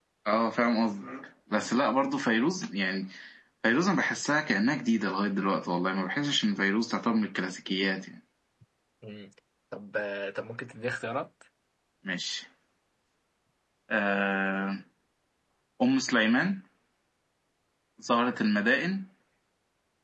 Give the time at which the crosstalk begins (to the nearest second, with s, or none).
none